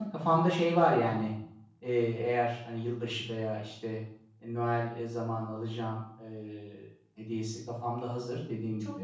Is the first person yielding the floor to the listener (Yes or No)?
No